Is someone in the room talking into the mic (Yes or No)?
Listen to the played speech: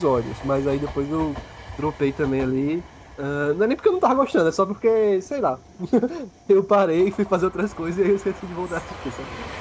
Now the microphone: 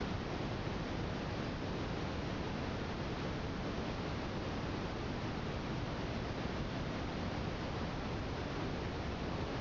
No